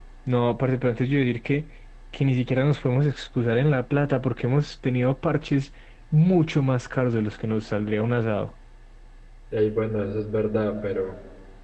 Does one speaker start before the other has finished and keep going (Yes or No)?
No